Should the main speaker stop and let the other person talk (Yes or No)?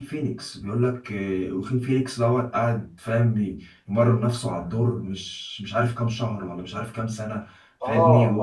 No